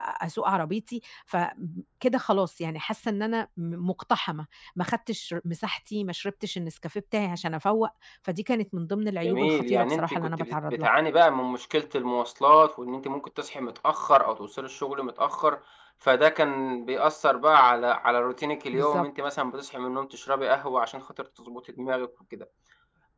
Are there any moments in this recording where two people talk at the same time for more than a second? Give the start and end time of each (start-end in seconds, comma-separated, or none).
9.2-10.9